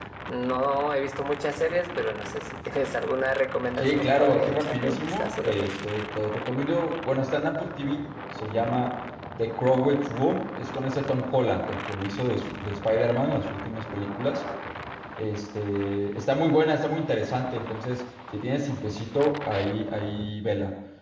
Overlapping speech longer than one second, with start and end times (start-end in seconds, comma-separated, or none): 3.8-5.7